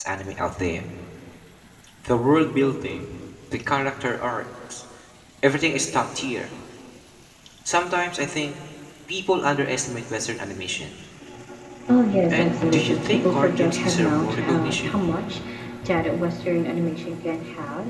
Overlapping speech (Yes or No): Yes